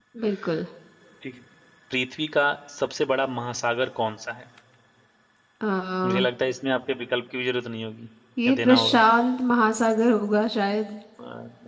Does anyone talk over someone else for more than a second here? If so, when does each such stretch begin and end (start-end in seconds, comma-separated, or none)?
none